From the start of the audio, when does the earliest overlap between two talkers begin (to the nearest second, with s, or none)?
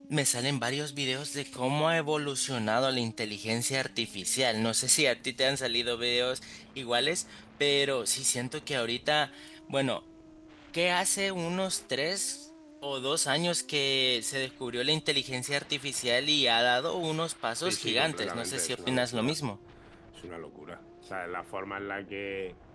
18 s